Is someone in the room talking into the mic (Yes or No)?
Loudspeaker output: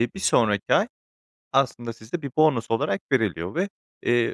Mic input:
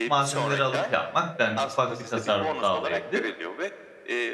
Yes